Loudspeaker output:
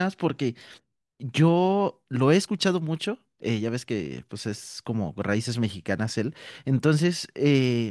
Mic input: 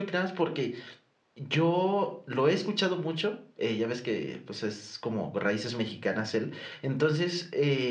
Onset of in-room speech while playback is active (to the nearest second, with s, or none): none